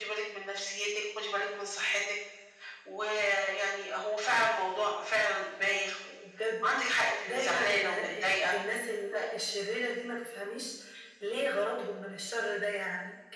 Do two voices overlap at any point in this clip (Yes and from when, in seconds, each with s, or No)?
Yes, from 7.3 s